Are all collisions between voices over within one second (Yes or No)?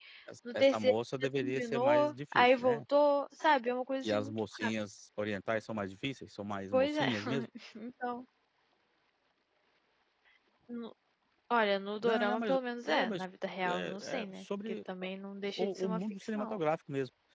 No